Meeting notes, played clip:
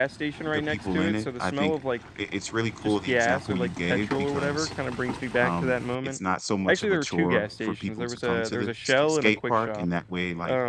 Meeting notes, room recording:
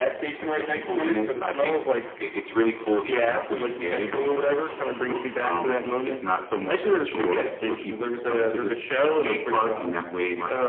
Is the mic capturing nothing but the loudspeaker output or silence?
Yes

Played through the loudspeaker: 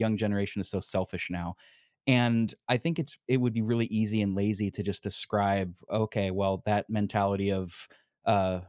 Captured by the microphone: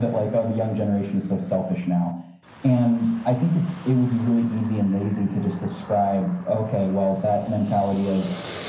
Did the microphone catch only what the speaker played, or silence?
Yes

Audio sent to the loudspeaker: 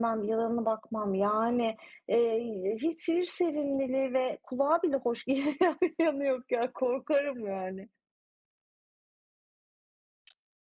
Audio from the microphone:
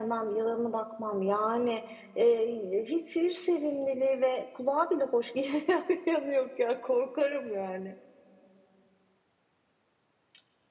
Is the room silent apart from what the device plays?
Yes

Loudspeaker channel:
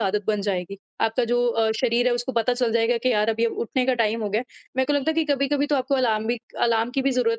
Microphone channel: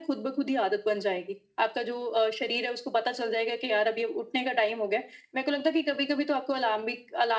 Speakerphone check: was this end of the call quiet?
Yes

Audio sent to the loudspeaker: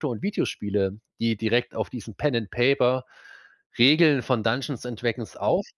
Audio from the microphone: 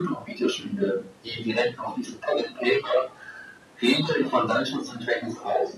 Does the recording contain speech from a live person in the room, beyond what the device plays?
Yes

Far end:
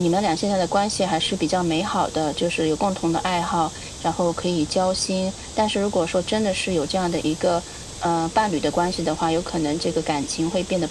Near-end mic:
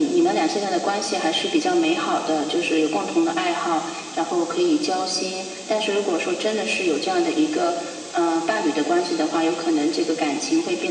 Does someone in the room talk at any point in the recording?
No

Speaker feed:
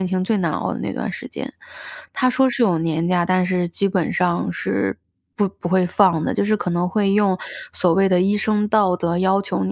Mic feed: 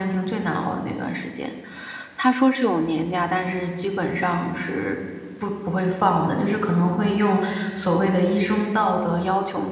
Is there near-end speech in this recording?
No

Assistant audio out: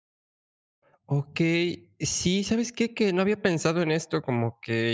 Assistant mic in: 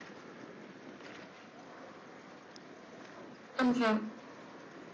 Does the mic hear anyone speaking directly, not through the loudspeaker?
Yes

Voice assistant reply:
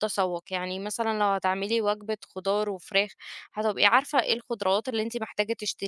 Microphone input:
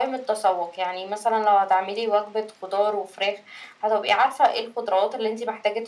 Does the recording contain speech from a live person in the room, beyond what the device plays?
No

